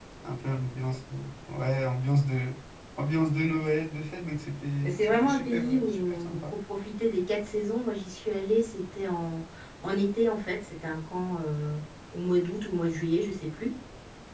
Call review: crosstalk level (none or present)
present